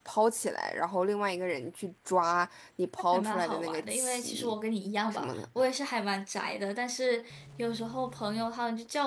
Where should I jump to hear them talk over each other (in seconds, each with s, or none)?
3.1 s